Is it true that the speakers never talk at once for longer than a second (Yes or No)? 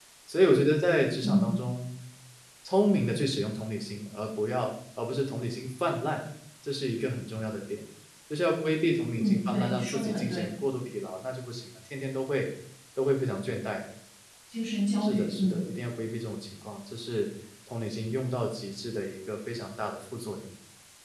No